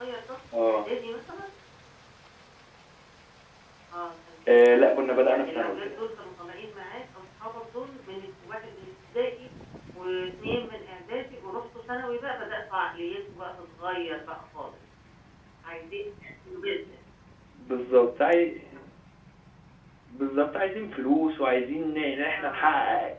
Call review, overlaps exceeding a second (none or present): present